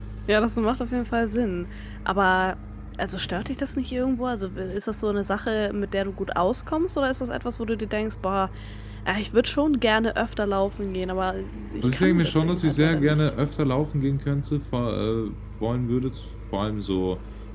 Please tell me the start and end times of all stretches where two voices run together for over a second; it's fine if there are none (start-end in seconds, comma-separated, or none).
11.8-13.2